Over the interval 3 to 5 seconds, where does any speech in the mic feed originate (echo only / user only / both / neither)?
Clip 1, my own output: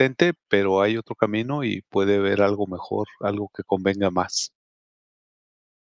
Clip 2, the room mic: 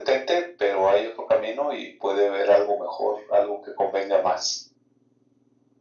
echo only